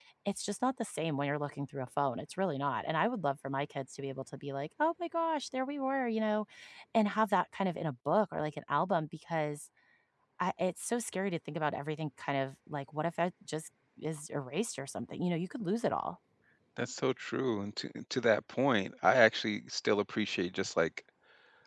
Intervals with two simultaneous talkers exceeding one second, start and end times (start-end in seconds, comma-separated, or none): none